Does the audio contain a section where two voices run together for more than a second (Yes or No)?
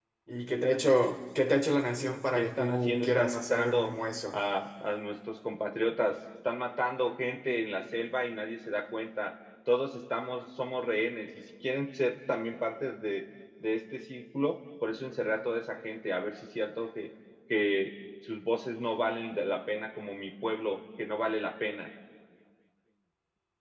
Yes